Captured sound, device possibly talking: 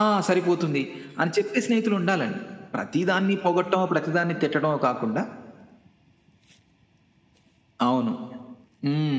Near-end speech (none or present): none